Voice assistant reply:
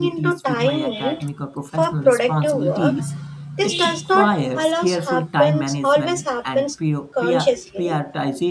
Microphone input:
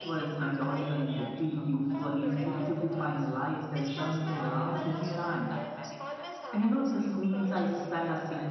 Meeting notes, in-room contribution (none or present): present